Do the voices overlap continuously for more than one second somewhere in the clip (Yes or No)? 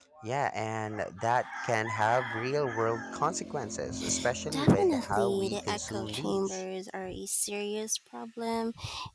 Yes